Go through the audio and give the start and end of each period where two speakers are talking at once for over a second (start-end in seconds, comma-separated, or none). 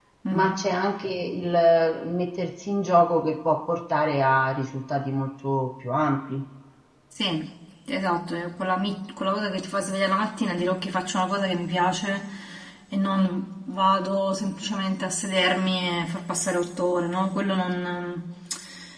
none